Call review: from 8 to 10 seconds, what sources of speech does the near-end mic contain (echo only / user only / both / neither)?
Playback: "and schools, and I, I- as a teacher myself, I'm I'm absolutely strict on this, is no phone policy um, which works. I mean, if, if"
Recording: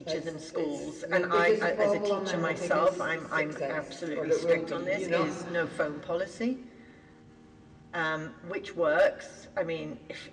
echo only